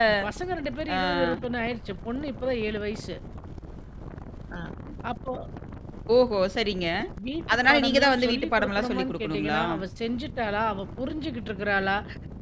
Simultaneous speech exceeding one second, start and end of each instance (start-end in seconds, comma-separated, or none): 7.5-9.6